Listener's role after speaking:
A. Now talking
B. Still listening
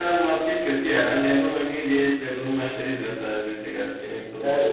A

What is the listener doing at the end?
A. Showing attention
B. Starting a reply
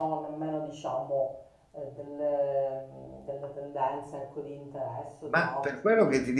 B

